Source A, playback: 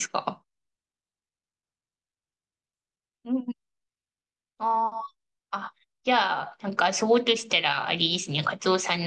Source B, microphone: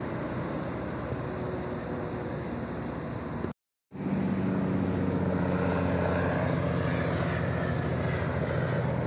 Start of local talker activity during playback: none

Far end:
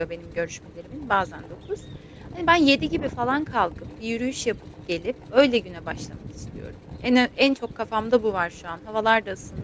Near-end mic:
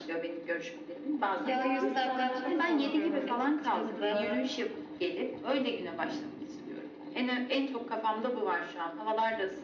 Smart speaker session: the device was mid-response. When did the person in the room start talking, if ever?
1.3 s

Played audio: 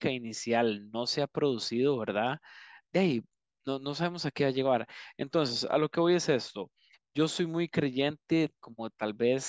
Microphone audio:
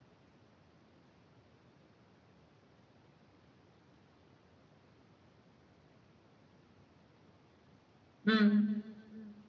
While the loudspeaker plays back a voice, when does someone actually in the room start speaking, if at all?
8.2 s

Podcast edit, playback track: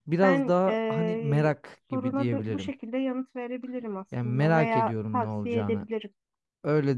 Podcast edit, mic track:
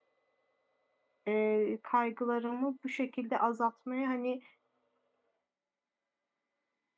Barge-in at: 1.3 s

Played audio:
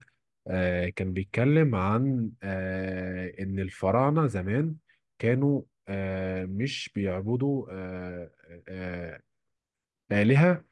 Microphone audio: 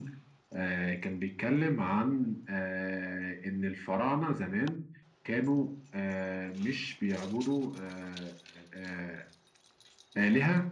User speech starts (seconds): none

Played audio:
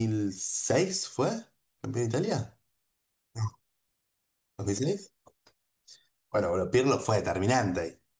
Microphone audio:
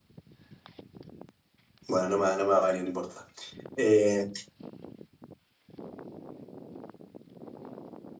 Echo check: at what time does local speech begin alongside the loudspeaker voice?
1.9 s

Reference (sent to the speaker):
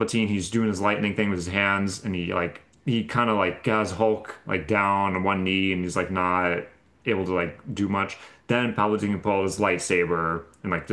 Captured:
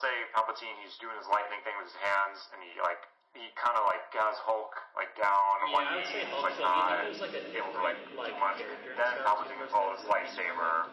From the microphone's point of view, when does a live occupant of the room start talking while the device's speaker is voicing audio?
5.6 s

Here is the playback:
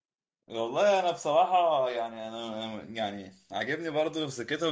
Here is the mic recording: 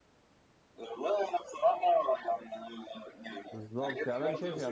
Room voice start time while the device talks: 3.5 s

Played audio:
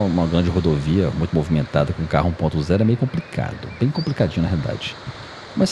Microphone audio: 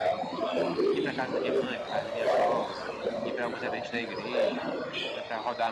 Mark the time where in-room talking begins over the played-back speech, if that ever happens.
0.9 s

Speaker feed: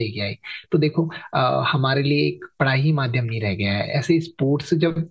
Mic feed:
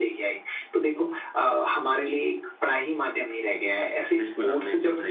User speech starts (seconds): 4.2 s

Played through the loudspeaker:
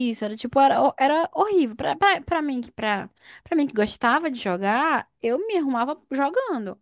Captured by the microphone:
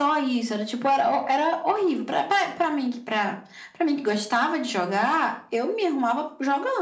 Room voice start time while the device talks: none

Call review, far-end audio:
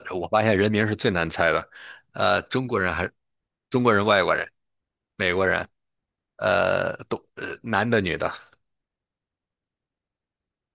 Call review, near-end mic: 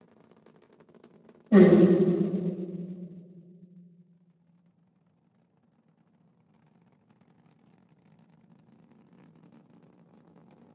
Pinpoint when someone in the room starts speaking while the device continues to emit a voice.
1.5 s

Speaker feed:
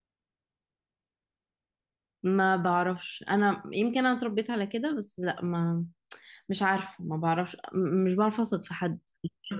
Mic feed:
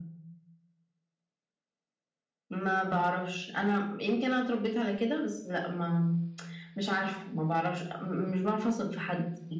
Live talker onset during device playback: none

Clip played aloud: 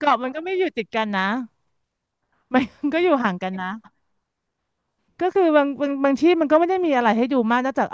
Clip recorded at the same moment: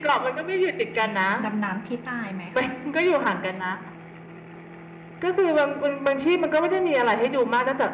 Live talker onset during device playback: 1.0 s

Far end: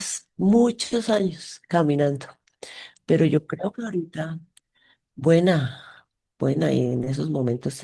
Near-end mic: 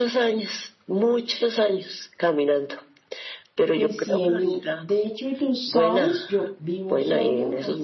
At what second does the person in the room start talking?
3.7 s

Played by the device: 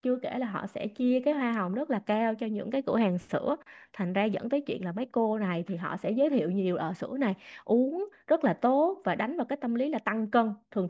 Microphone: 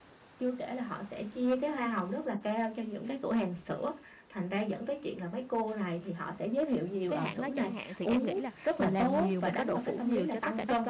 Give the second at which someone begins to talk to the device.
7.1 s

